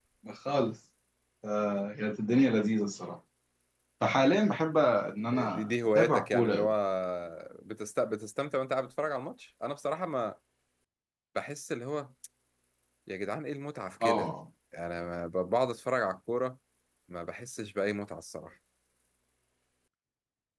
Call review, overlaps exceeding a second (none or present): present